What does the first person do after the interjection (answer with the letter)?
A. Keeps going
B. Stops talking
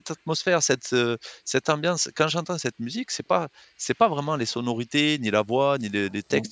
B